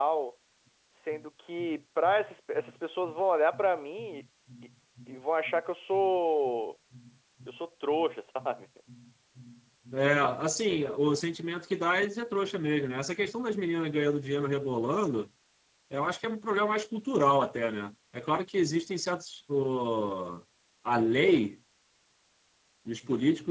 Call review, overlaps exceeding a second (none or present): none